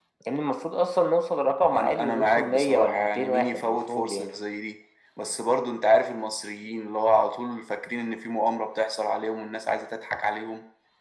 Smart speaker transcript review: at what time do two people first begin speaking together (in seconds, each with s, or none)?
1.7 s